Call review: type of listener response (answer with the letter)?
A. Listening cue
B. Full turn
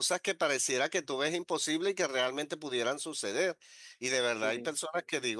A